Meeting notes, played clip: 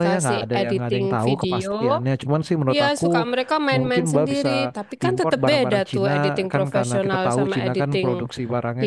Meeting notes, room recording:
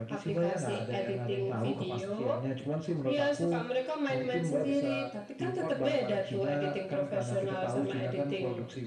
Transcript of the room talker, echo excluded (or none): none